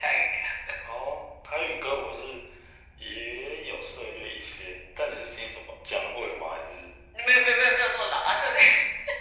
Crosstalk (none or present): none